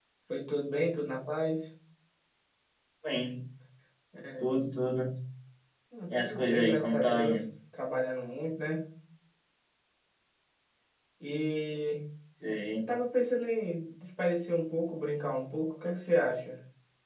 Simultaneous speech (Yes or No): Yes